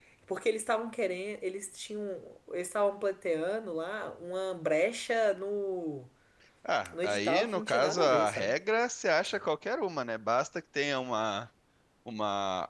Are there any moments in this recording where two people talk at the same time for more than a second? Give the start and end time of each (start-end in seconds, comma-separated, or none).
6.9-8.5